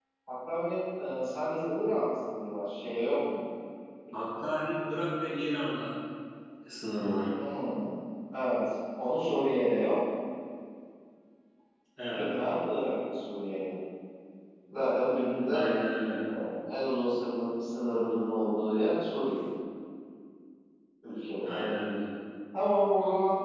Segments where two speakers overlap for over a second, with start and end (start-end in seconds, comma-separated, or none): none